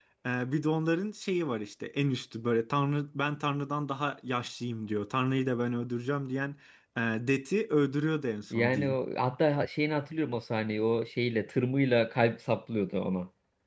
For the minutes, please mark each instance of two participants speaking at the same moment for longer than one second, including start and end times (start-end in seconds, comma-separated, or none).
none